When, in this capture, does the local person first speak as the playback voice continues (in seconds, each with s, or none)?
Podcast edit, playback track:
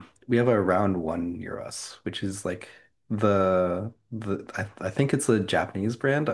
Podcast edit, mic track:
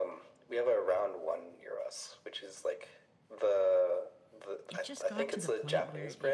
4.7 s